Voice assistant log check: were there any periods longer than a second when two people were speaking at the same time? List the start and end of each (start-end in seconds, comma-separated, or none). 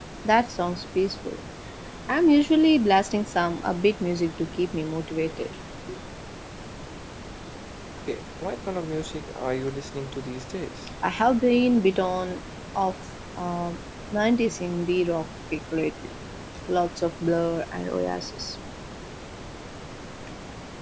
none